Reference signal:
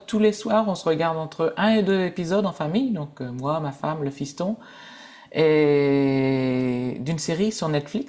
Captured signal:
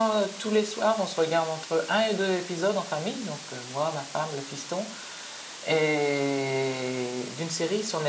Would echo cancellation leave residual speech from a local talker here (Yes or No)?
No